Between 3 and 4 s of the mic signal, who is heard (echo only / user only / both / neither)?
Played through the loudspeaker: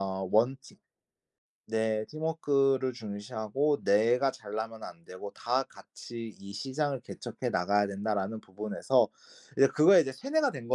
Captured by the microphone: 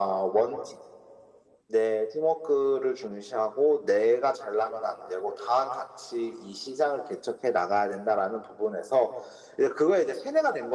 echo only